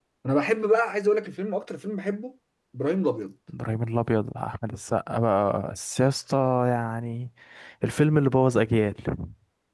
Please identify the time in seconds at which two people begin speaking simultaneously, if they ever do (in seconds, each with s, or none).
none